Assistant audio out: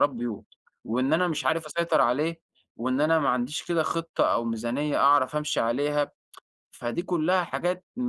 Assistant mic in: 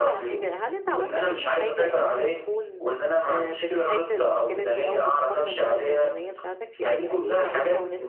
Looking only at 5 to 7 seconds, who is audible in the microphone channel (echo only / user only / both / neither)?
both